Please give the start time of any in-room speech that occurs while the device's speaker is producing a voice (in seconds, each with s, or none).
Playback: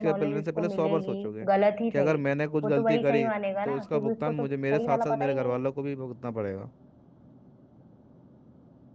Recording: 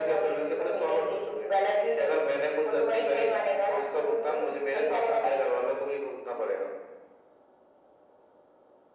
none